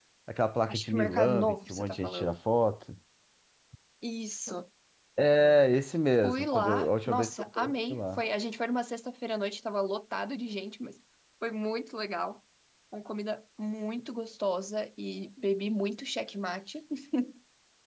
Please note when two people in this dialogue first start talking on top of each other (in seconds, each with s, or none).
0.7 s